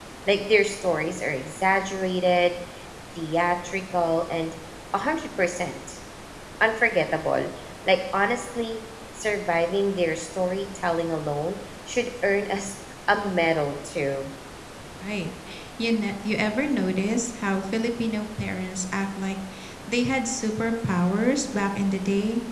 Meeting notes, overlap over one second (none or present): none